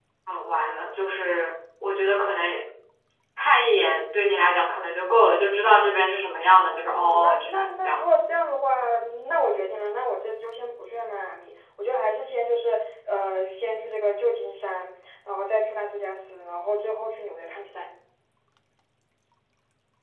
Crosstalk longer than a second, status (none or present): present